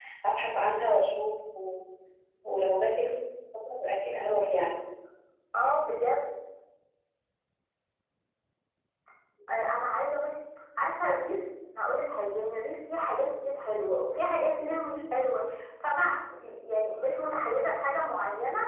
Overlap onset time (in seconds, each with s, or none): none